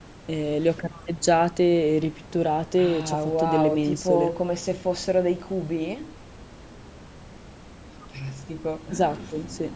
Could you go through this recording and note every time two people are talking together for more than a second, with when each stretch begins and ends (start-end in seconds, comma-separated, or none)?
2.8-4.4